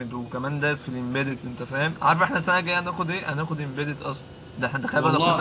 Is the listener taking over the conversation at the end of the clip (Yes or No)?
No